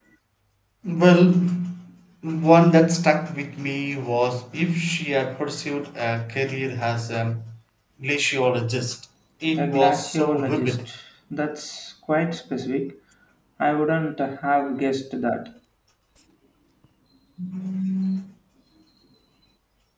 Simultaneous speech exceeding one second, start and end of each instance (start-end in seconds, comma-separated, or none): 9.6-10.9